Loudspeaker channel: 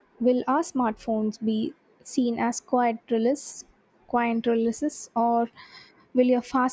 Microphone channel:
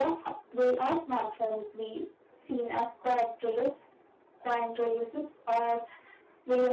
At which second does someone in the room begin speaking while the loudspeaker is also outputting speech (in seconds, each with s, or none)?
none